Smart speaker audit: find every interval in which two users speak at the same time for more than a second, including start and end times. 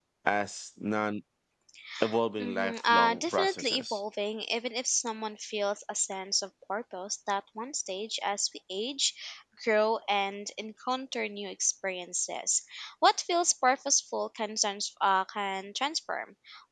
2.4-4.0

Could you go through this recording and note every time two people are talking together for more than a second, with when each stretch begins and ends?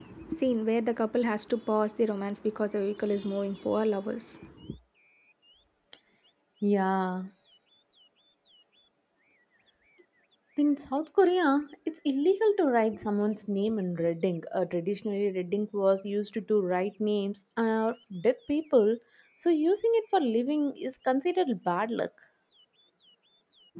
none

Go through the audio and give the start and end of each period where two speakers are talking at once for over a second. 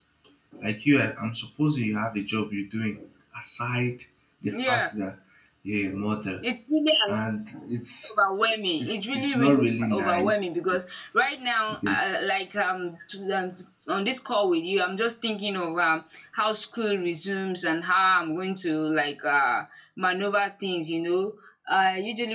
8.8-10.5

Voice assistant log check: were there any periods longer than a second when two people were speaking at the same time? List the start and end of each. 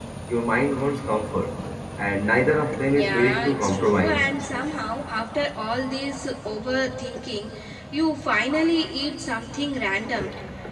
2.9-4.2

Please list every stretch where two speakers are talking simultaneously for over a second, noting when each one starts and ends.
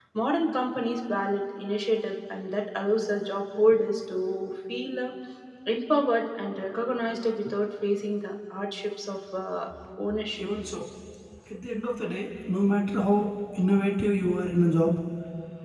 none

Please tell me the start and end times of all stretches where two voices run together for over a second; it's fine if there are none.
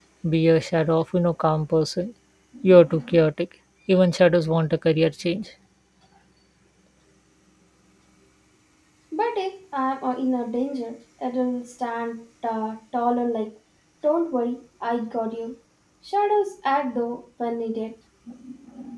none

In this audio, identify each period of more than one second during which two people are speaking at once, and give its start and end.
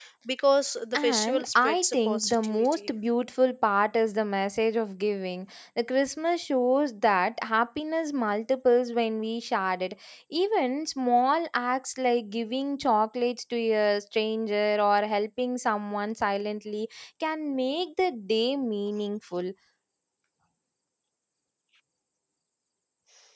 0.9-2.9

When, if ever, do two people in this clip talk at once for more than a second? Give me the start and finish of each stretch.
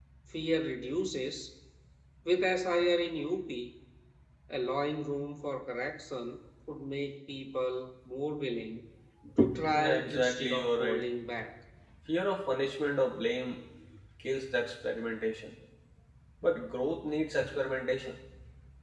9.7-11.0

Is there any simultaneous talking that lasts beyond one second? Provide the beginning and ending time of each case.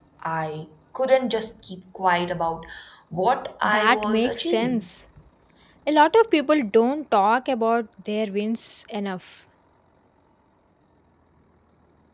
3.6-4.9

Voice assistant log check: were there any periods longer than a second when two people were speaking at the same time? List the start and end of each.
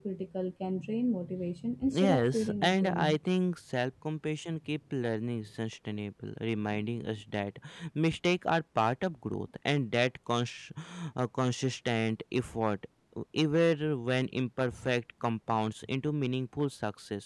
1.9-3.2

